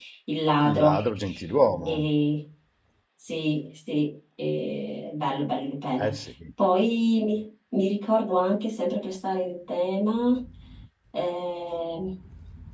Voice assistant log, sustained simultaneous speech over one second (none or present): none